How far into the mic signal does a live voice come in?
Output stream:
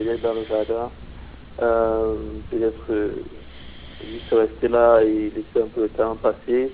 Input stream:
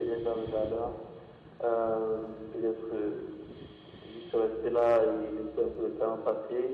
none

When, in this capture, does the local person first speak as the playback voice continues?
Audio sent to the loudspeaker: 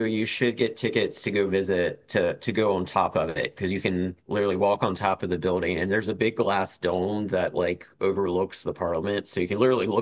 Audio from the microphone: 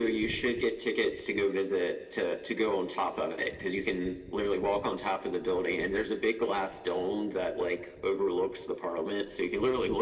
none

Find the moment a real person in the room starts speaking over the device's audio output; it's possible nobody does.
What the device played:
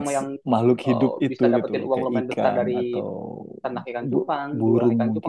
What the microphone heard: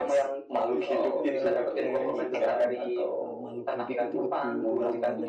0.8 s

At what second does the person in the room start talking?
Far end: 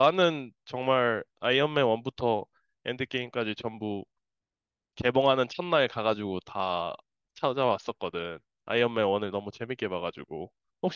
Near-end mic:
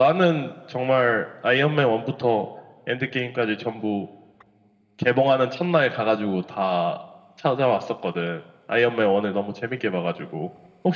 none

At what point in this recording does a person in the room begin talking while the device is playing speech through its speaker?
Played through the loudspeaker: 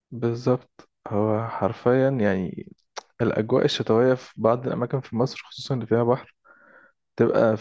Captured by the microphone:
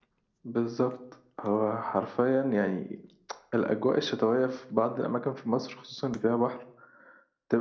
none

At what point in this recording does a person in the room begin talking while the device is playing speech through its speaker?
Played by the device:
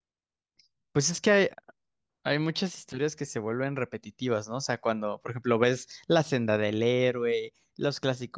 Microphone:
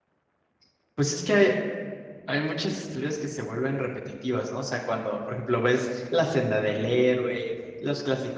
none

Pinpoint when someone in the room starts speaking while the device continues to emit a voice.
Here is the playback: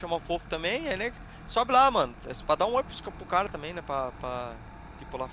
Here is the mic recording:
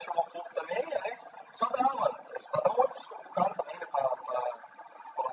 none

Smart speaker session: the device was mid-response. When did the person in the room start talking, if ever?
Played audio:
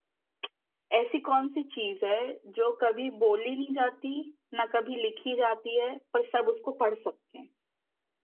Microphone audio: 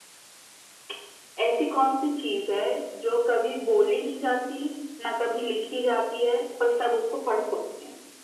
none

